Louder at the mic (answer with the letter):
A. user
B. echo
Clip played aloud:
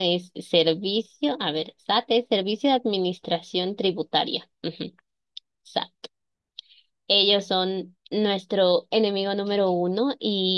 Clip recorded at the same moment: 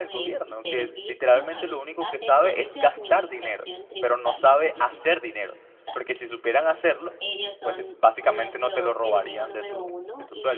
A